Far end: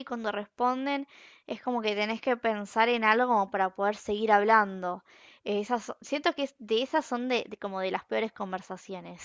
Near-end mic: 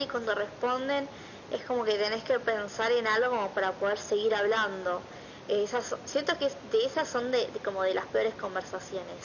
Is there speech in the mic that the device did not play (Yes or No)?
No